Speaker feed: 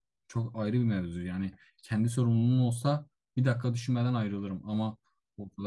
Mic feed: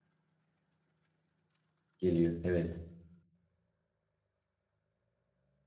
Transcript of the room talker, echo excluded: geliyor. Evet,

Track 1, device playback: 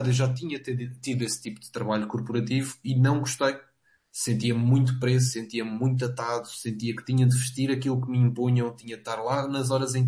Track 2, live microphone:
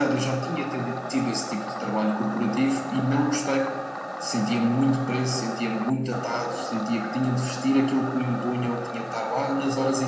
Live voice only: none

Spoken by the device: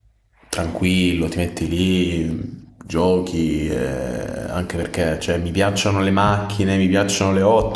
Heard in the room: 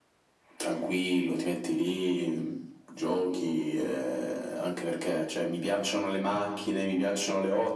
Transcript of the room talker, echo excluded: none

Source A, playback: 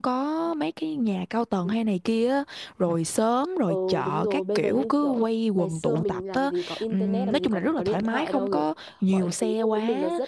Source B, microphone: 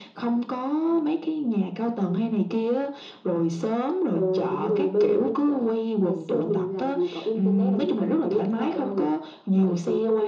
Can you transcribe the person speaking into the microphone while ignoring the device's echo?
none

